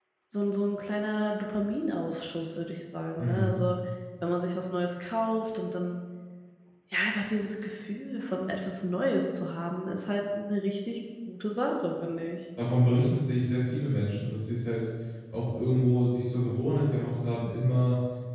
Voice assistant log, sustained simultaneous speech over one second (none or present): none